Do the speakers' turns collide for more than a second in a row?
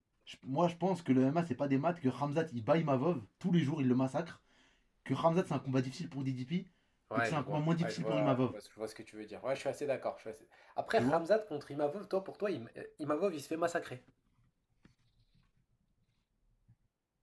Yes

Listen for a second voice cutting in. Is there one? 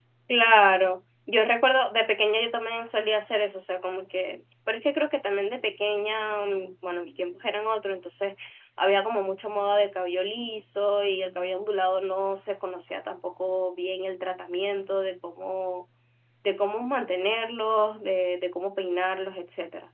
No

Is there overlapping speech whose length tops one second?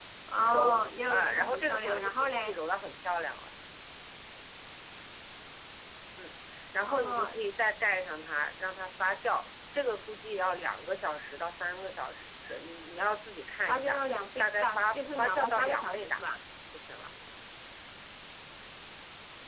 Yes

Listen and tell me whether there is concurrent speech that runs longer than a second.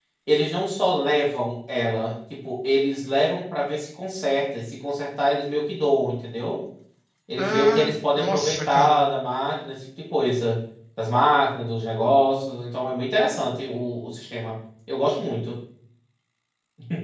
Yes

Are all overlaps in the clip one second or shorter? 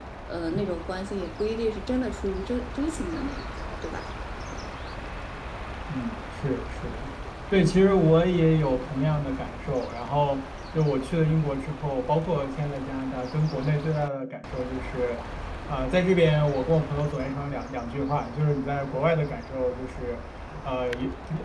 Yes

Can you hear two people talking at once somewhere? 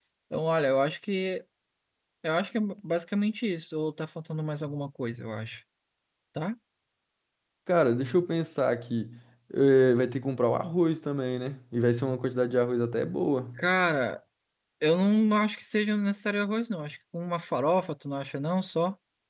No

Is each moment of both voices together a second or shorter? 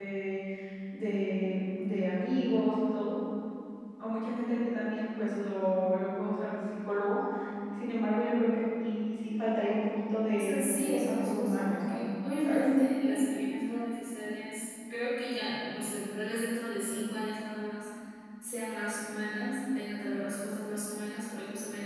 No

